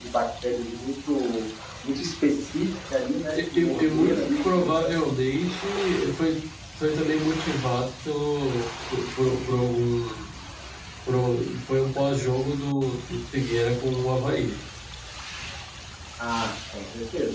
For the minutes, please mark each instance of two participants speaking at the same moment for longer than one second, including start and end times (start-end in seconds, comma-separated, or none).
3.3-4.9